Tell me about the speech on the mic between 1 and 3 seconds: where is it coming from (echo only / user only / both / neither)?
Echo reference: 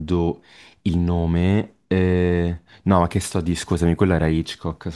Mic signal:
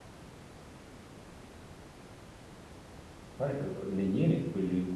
neither